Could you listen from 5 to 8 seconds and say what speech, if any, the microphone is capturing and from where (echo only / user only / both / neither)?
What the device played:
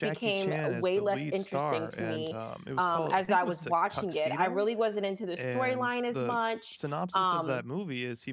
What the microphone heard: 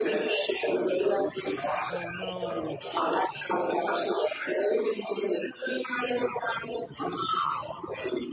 echo only